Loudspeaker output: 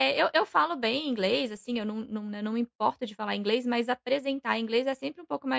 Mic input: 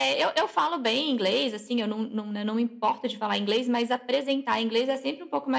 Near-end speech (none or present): none